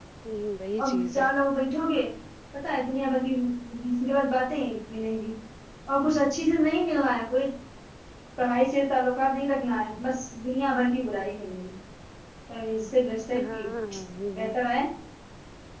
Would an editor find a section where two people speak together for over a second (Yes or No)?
No